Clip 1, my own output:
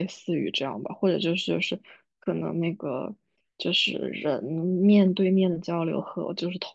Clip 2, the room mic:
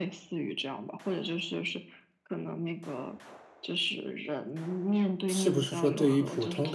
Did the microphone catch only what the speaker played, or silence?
No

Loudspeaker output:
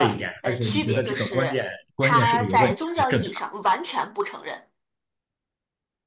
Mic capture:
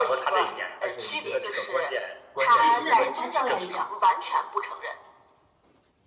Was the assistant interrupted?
Yes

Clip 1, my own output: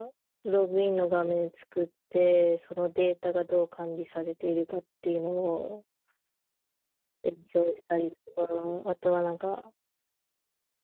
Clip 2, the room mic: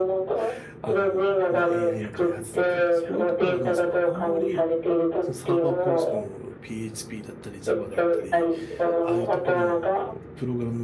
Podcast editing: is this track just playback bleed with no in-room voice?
No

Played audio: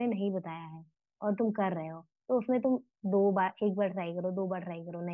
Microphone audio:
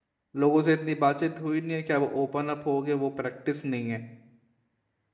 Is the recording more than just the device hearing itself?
Yes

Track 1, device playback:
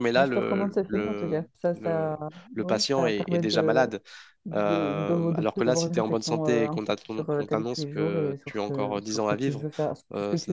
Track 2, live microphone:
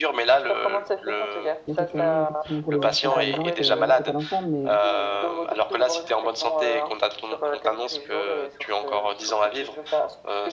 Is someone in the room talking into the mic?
Yes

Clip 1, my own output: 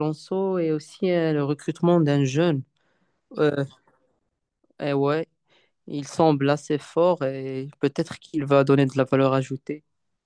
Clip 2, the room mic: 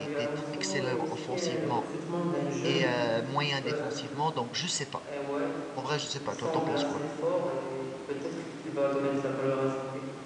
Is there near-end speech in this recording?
Yes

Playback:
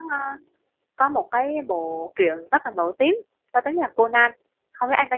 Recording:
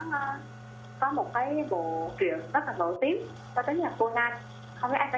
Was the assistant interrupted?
No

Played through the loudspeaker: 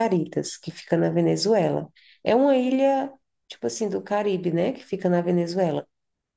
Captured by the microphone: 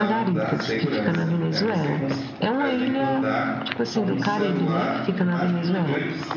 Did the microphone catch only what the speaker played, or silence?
No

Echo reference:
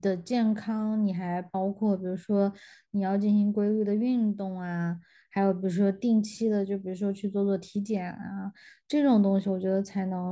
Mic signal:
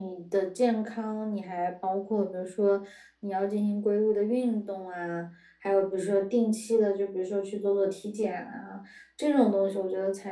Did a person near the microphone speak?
No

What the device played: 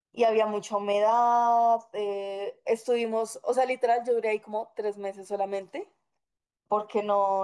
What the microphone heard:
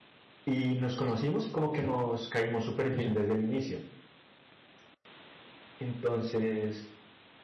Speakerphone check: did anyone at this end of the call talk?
Yes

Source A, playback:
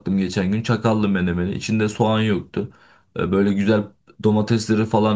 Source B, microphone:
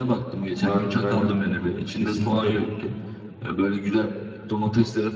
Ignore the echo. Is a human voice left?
Yes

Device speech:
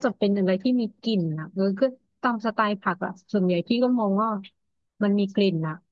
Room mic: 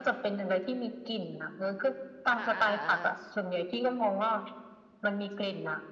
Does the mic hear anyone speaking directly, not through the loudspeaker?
Yes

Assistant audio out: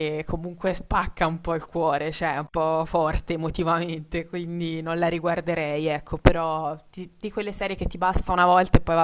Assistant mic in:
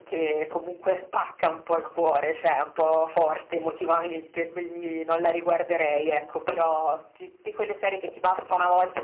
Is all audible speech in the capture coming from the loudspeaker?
Yes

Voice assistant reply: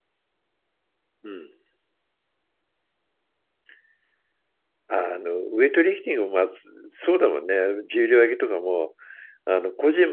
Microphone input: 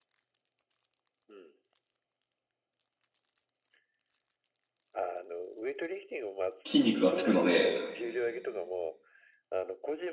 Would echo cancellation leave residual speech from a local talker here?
Yes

